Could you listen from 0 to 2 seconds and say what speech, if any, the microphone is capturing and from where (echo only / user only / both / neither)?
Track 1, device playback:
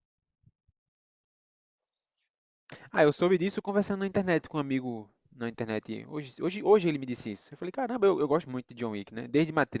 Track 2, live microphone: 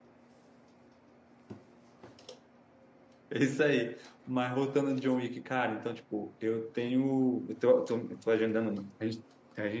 neither